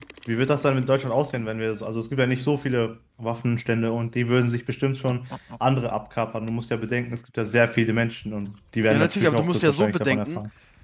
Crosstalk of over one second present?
Yes, from 8.9 s

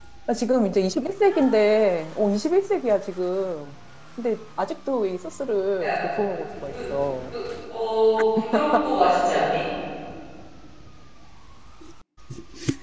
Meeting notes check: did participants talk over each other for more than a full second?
No

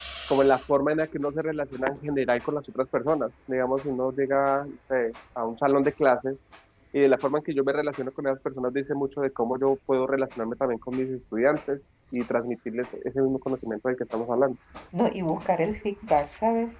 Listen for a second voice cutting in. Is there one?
No

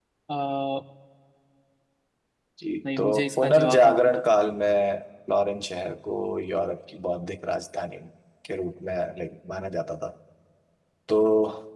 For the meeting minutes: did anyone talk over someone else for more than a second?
Yes, from 3.0 s

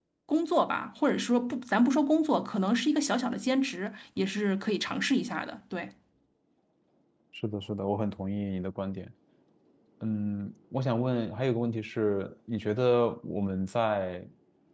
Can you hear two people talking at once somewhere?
No

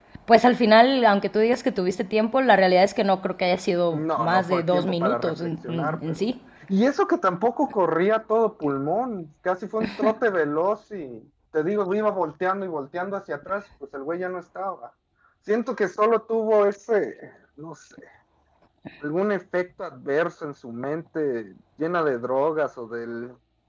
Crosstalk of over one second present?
Yes, from 3.9 s

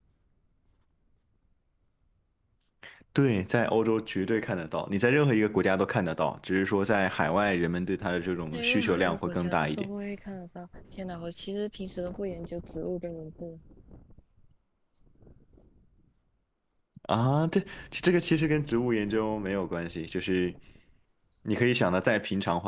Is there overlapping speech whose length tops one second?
Yes, from 8.5 s

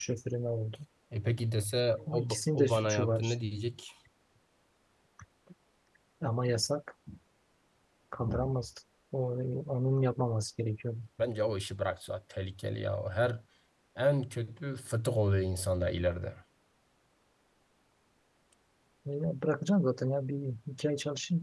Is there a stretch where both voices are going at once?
Yes, from 2.1 s

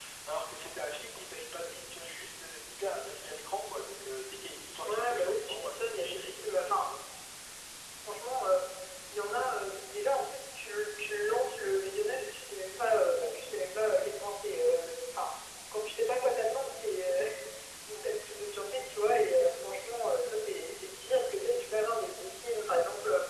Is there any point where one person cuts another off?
Yes, from 4.8 s

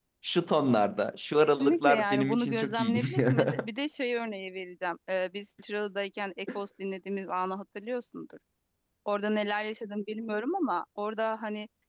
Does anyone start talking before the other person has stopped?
Yes, from 1.4 s

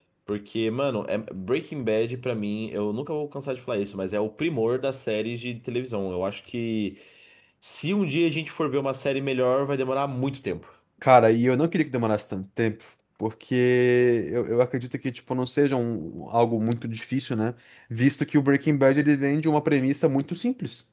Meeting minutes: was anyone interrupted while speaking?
No

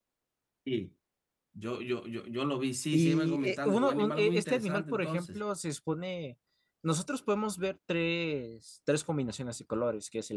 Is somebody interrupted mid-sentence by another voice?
Yes, from 2.9 s

